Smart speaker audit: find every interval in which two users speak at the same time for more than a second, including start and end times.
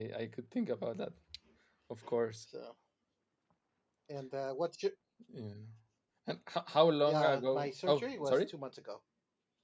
7.1-8.5

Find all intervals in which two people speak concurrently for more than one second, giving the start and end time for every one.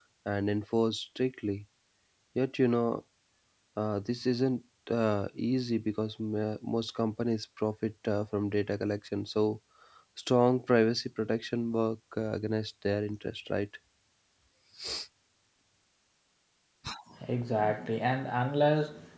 none

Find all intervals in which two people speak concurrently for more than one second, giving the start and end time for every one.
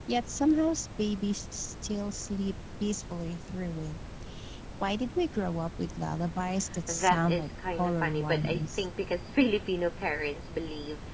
6.9-8.8

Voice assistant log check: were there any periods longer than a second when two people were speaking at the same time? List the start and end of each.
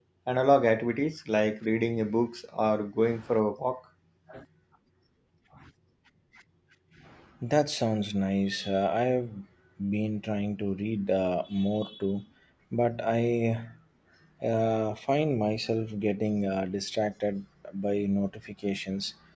none

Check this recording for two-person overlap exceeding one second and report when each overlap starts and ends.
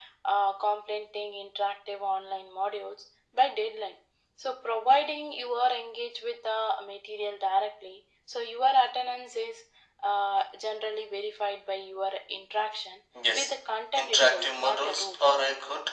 14.0-15.3

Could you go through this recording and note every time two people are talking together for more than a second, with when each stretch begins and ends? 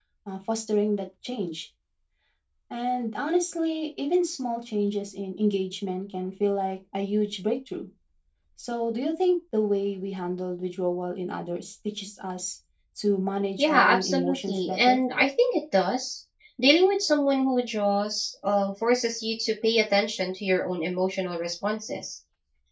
13.6-15.0

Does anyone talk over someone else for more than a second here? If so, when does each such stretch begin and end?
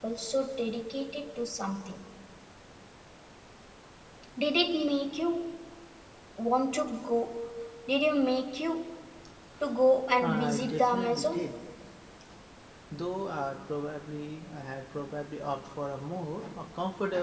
10.2-11.4

